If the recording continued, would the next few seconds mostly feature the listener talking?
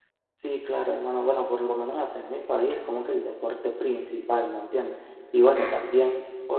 No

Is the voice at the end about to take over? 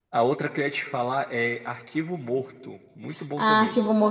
Yes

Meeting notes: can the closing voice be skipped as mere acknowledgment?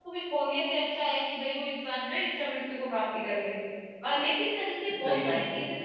Yes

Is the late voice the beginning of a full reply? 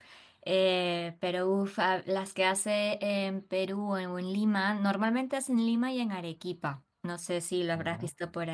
No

